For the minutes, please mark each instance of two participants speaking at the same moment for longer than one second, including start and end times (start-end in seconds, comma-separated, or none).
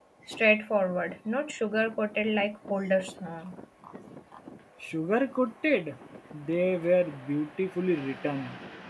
none